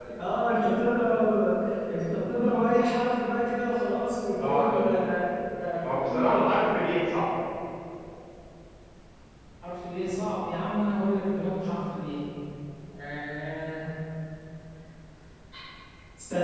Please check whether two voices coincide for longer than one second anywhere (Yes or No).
No